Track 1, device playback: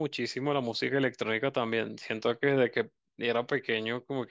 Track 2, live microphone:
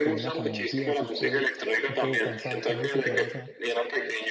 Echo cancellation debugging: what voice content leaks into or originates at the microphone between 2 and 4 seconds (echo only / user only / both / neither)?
both